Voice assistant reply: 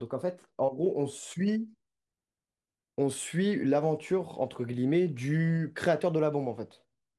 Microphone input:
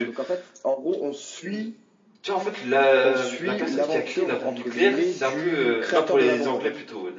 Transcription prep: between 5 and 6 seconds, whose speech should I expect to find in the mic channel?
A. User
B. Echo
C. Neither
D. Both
D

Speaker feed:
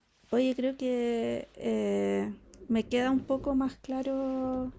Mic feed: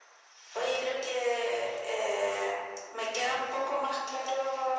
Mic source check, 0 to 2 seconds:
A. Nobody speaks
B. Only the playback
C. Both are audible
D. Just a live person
B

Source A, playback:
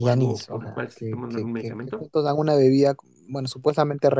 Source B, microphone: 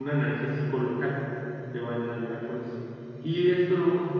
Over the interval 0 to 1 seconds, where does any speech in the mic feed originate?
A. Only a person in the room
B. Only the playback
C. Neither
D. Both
A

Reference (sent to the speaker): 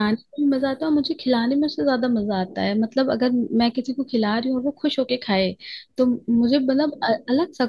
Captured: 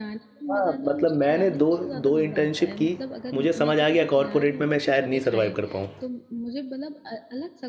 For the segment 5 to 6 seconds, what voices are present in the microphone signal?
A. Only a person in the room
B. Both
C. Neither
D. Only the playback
B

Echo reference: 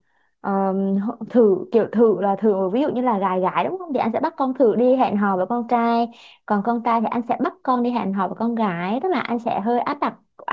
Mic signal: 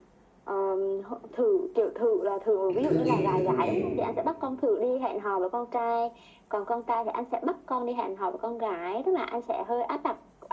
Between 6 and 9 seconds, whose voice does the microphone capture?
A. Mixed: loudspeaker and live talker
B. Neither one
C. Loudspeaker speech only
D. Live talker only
C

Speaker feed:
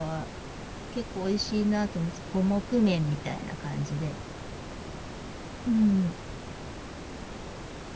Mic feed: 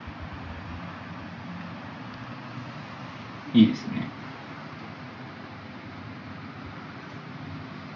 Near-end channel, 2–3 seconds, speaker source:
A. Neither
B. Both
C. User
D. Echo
A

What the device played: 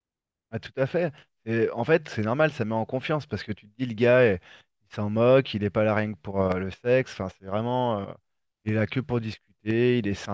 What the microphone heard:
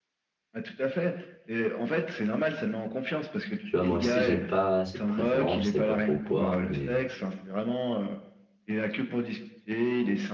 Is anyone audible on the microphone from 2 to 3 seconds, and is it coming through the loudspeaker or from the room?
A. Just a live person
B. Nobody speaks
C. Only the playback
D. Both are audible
C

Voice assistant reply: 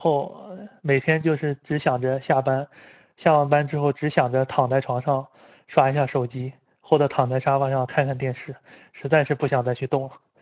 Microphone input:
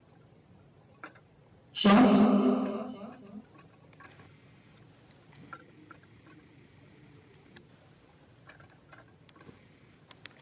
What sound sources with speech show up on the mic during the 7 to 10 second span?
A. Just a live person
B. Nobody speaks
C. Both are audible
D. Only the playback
B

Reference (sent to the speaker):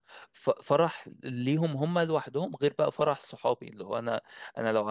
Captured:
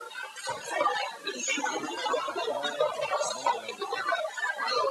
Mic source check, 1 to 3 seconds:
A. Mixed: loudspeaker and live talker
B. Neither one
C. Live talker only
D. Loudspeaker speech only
A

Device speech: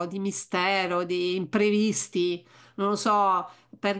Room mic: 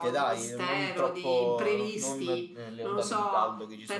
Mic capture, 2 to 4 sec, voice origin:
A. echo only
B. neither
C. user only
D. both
D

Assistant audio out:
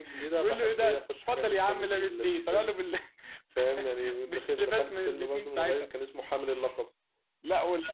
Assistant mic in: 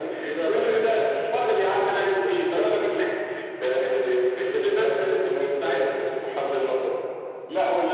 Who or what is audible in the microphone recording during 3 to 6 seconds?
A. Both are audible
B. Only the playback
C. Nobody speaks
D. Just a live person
B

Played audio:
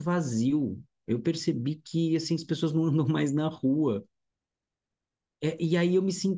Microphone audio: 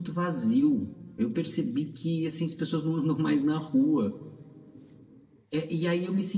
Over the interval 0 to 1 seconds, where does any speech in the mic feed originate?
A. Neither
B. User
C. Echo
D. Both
C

